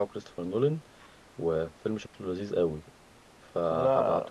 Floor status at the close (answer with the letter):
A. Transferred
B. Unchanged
B